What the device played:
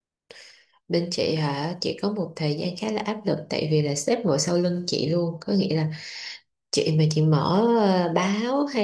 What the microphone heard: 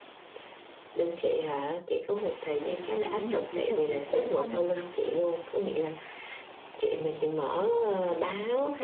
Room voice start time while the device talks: 2.6 s

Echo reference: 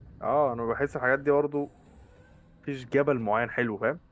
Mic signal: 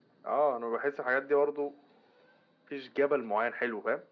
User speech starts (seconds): none

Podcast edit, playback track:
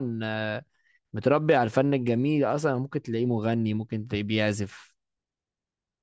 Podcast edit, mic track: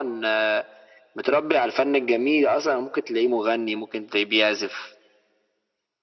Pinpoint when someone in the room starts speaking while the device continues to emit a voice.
none

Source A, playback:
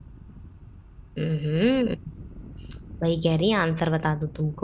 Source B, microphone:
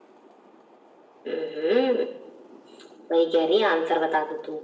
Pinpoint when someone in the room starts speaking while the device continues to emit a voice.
none

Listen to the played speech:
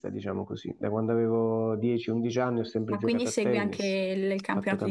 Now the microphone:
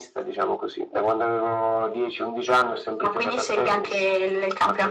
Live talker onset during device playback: none

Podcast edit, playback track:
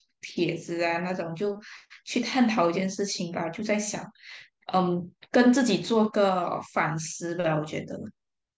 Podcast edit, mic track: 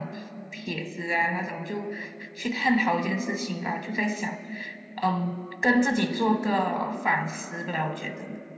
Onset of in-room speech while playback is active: none

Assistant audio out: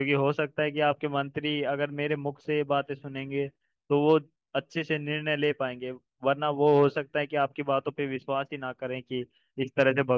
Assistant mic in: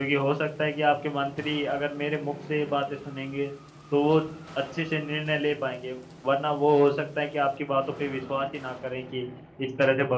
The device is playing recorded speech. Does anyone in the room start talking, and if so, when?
none

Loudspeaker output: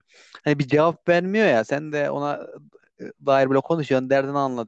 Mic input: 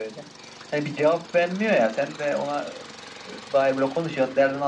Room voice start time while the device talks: none

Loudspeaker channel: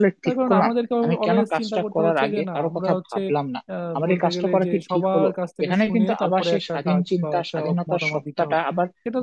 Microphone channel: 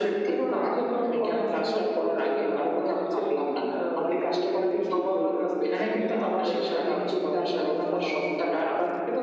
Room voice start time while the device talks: none

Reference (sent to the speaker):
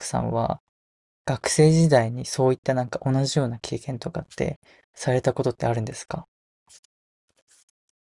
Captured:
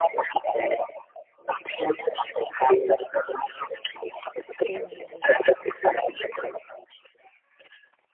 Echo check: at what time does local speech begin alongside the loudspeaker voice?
4.7 s

